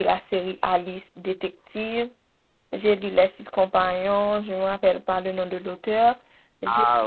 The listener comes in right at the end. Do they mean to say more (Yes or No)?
No